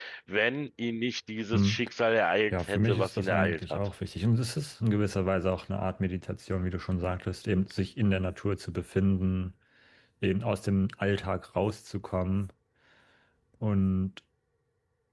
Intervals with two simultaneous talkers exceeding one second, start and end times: 2.5-3.8

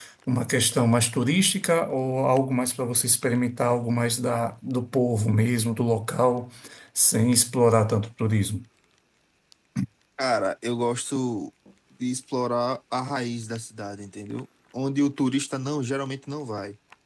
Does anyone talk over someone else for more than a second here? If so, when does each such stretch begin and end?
none

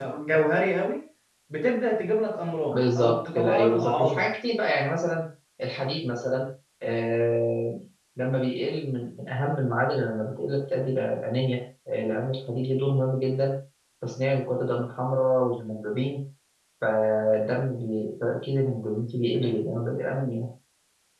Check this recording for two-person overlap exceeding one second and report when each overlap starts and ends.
2.7-4.3

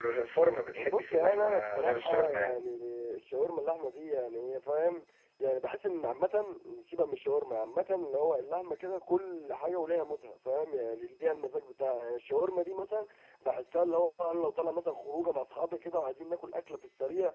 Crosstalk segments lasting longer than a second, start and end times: 0.8-2.6

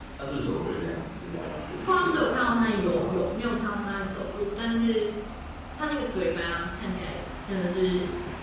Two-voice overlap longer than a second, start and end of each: 1.9-3.5

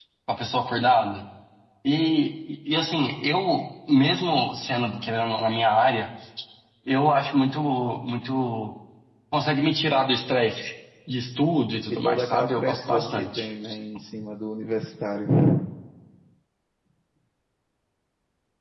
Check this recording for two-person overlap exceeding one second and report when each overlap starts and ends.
12.0-13.5

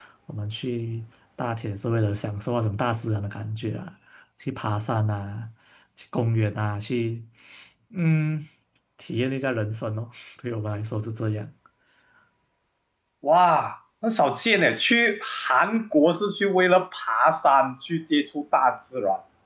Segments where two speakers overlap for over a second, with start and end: none

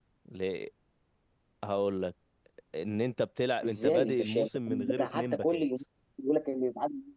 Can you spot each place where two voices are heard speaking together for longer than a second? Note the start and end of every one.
3.6-5.6

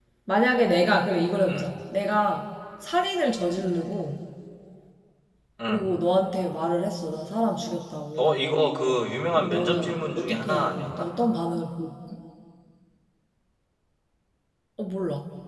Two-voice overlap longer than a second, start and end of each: 9.4-11.1

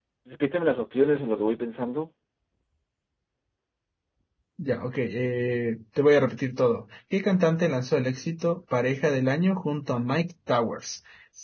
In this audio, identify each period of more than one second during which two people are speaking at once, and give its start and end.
none

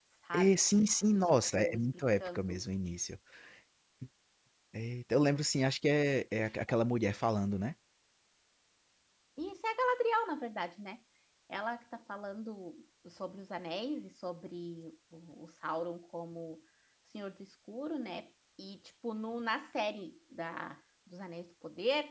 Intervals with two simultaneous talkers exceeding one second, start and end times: 1.2-2.6

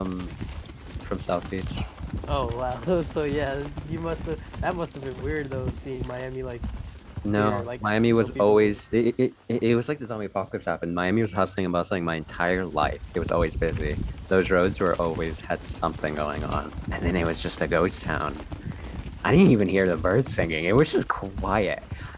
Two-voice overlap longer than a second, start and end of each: 7.4-8.7

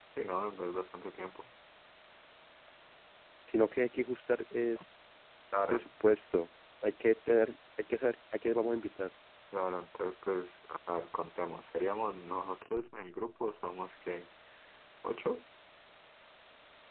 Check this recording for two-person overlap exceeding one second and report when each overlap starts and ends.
none

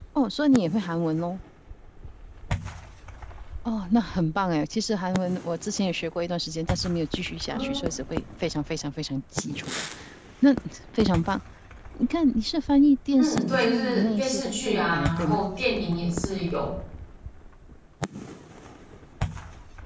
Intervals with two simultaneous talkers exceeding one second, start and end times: 13.2-15.4

